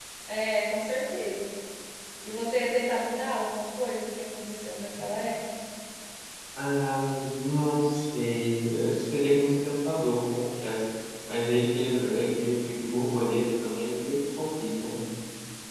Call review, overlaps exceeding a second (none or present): none